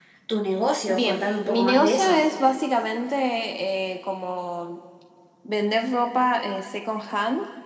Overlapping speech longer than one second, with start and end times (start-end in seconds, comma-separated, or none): 0.9-2.3